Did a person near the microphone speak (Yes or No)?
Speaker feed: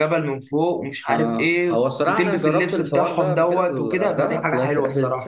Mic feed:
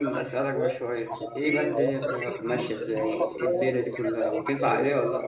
Yes